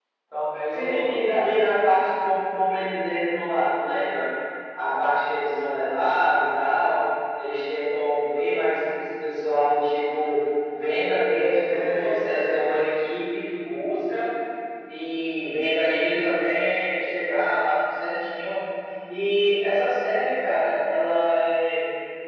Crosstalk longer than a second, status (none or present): present